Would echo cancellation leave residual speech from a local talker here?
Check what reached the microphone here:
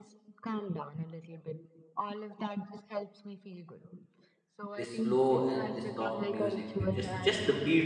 Yes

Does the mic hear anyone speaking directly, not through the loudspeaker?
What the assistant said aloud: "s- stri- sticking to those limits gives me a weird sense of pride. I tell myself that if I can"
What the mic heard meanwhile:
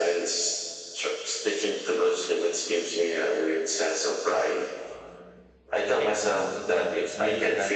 Yes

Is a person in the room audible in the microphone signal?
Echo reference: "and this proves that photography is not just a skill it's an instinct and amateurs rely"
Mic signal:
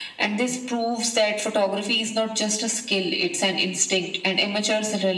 No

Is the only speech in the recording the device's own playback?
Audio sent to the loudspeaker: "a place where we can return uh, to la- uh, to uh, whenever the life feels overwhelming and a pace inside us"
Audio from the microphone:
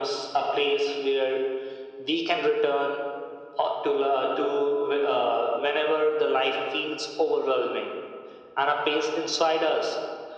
Yes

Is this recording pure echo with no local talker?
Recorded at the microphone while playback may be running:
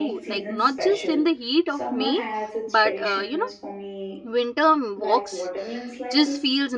No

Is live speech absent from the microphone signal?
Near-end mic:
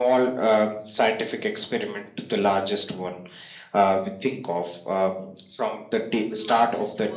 No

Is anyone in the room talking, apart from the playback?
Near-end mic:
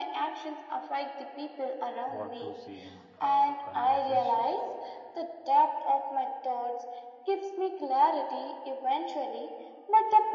Yes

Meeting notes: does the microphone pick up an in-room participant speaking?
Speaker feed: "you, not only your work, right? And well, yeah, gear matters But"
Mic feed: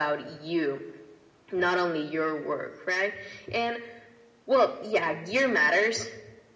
No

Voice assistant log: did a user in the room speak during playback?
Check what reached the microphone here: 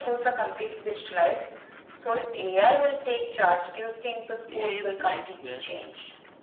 Yes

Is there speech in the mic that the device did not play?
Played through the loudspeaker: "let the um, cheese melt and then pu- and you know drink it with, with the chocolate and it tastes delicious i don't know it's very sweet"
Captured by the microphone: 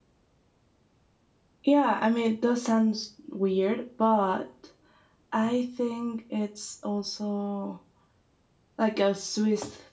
Yes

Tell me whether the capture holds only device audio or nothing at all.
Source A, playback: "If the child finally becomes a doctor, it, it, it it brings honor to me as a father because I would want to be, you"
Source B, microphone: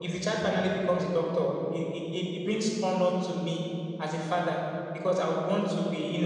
Yes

